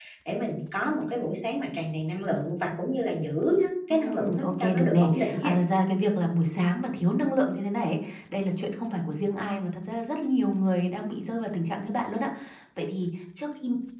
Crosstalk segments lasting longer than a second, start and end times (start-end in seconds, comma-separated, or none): 3.9-5.5